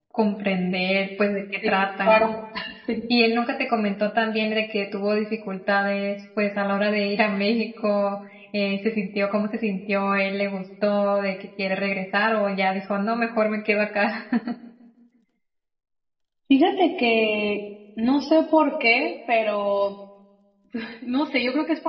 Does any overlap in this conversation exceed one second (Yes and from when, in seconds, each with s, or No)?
No